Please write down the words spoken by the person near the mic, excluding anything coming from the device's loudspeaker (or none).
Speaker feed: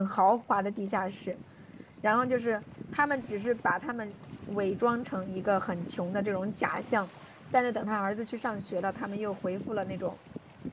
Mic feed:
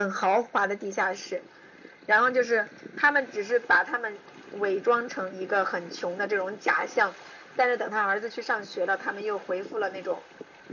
none